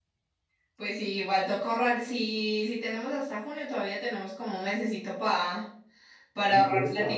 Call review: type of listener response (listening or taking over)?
taking over